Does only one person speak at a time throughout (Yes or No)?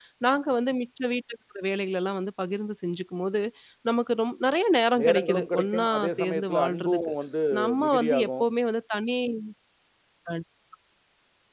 No